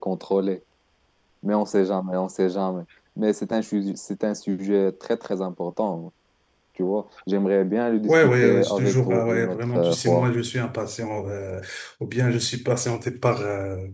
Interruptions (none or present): present